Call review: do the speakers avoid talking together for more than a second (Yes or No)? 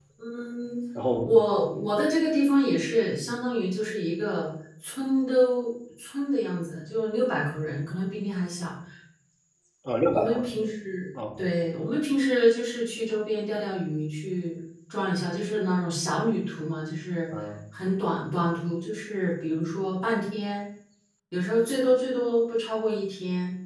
Yes